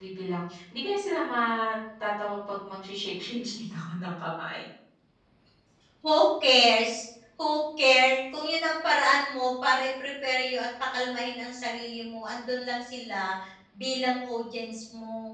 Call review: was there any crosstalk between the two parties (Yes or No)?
No